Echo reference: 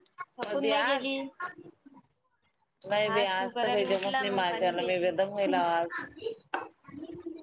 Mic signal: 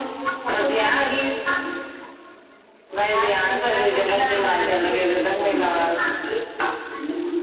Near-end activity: none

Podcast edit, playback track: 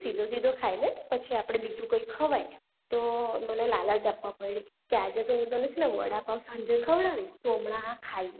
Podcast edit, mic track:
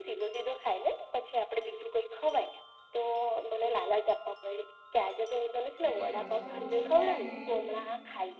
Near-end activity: present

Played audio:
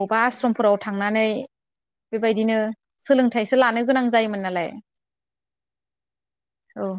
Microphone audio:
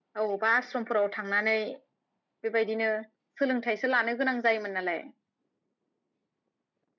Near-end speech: none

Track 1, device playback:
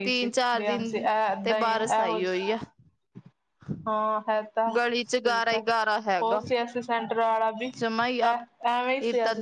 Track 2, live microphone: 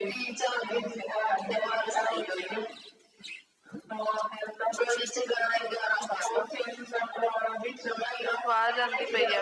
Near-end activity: present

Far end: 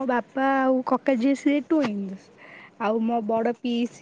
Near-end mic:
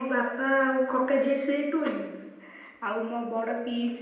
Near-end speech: none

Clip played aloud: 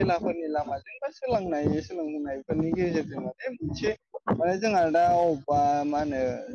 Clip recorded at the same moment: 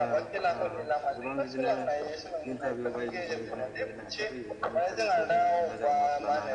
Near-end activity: present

